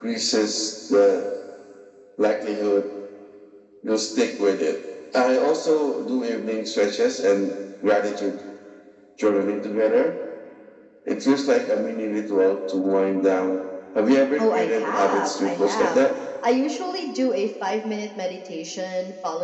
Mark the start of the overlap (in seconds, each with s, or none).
14.4 s